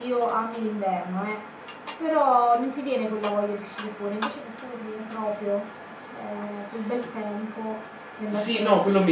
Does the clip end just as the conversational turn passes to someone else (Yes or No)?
Yes